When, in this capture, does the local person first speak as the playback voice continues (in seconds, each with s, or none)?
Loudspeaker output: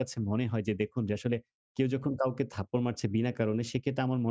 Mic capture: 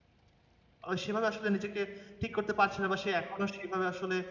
0.9 s